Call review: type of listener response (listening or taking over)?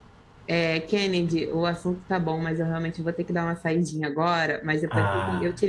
listening